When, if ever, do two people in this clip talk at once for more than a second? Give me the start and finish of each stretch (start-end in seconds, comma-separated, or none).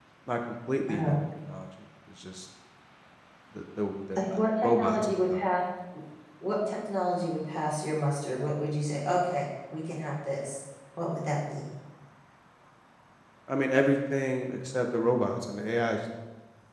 4.2-5.4